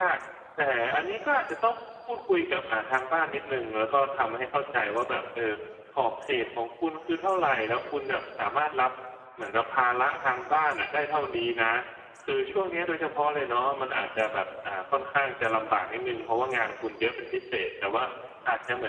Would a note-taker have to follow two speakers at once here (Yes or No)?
No